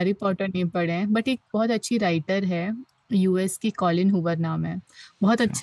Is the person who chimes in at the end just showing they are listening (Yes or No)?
Yes